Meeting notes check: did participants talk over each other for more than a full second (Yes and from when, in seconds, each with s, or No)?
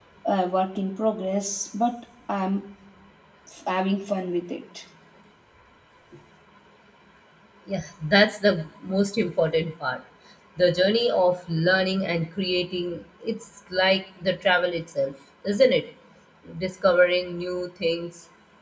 No